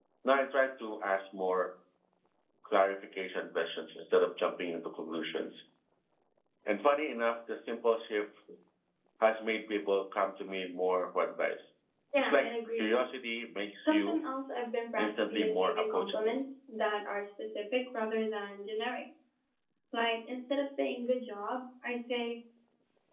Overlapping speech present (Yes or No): Yes